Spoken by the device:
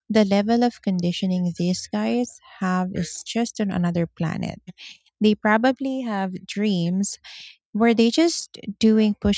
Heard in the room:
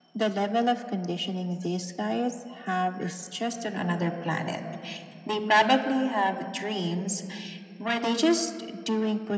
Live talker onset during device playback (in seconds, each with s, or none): none